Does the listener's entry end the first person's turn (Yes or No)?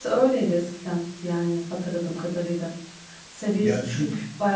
No